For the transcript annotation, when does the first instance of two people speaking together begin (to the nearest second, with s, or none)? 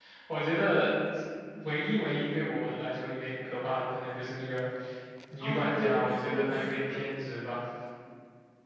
5 s